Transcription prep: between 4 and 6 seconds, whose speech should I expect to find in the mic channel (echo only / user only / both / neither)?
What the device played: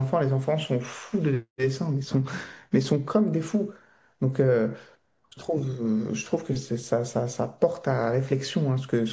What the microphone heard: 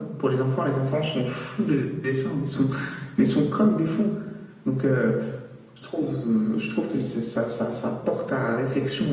echo only